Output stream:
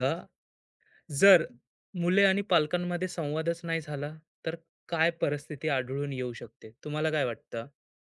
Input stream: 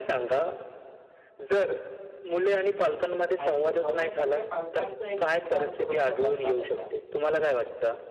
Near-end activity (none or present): present